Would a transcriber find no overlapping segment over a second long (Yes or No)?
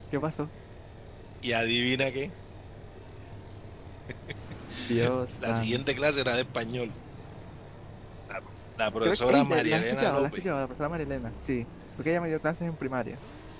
No